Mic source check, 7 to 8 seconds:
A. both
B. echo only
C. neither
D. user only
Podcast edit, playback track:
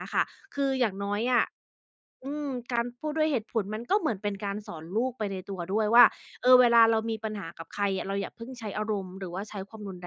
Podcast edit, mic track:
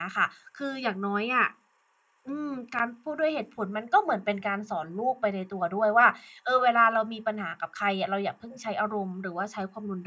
B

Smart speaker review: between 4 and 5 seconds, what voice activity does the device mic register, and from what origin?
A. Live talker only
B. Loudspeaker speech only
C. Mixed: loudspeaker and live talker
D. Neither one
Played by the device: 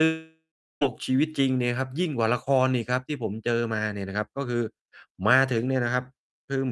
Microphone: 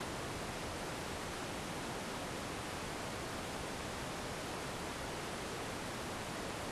D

